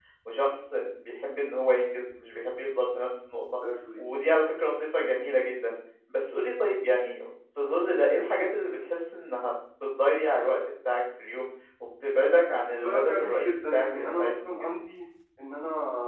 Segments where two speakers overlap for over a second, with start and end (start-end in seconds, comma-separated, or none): 12.8-14.7